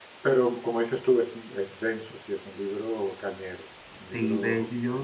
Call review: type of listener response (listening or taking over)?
taking over